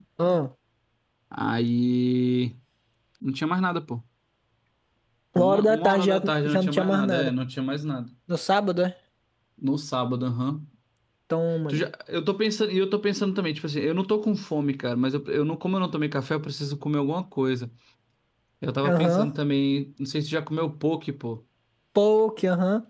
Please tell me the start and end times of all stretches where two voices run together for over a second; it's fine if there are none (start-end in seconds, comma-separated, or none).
5.4-7.3